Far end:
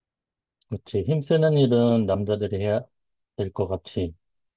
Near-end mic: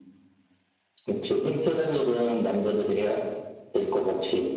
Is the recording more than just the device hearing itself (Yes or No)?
No